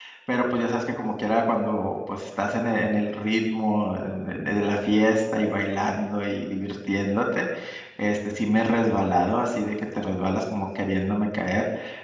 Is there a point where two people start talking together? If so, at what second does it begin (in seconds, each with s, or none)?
none